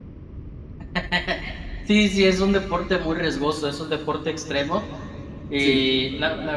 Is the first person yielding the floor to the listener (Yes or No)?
No